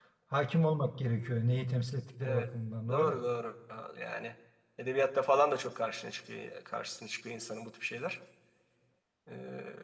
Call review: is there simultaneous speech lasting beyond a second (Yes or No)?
No